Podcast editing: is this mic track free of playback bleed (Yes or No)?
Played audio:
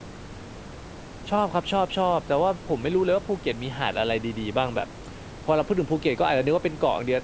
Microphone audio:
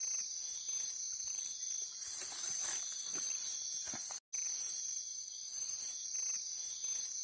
Yes